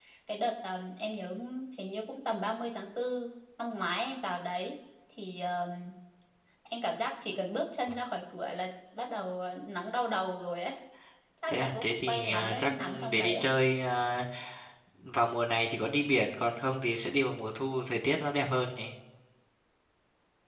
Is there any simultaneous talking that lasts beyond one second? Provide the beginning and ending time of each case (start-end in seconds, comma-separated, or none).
11.5-13.4